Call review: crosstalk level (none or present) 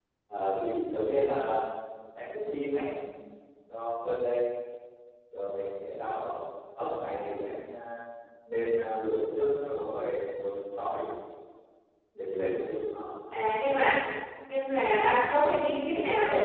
none